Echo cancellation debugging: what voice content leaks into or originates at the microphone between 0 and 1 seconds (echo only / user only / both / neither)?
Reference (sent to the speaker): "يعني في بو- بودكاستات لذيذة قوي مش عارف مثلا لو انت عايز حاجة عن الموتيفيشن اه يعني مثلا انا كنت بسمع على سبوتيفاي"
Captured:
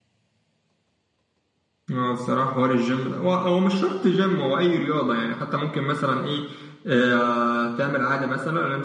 neither